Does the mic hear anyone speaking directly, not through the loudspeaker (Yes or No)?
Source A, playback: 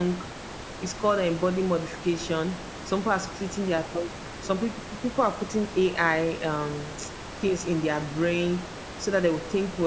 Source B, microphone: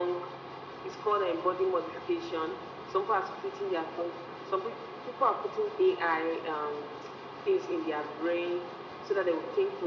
No